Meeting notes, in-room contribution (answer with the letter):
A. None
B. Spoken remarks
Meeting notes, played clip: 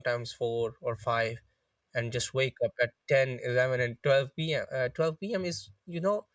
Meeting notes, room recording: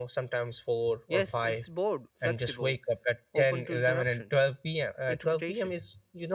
B